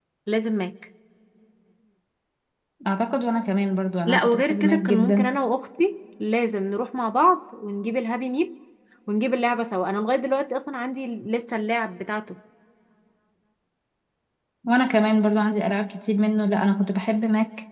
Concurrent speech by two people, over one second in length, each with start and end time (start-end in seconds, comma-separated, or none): 4.1-5.3